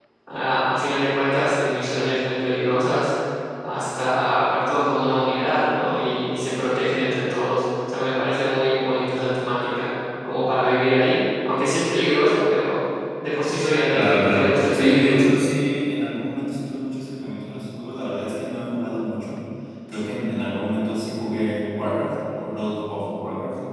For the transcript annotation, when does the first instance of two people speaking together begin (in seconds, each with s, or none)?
13.9 s